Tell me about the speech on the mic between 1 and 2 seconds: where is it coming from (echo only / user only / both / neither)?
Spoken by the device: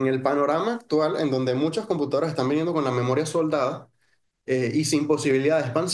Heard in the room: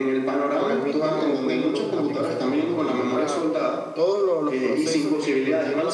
both